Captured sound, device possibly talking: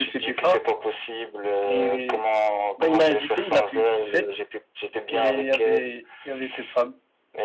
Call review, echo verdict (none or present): present